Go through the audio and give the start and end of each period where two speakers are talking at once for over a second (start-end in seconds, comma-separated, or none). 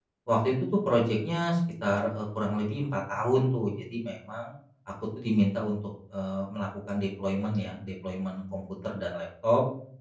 none